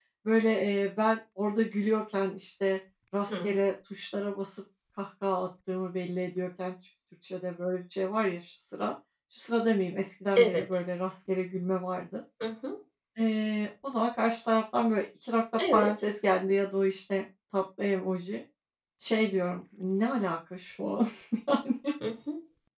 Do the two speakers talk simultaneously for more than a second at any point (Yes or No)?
No